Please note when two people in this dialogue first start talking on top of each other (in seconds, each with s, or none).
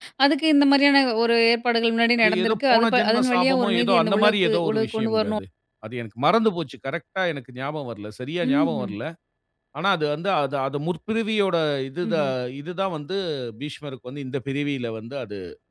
2.2 s